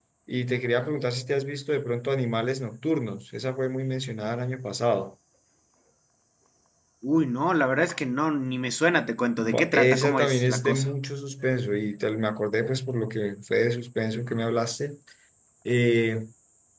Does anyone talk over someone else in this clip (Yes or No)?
Yes